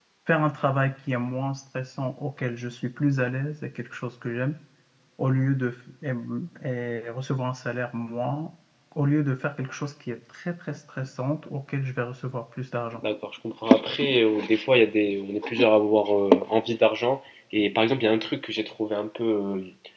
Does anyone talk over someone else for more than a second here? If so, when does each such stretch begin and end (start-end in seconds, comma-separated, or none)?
none